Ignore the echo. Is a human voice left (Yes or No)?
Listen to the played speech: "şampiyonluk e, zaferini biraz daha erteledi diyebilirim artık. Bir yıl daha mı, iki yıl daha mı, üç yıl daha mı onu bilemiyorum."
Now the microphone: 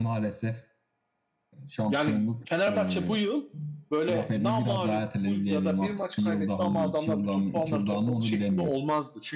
Yes